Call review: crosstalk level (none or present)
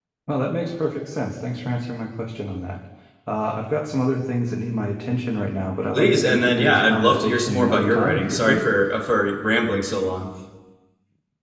present